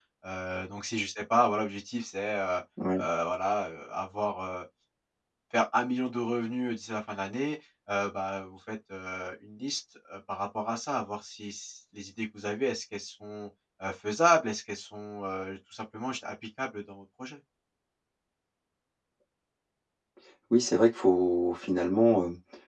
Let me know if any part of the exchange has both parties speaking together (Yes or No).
No